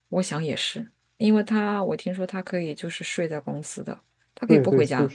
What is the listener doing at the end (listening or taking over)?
taking over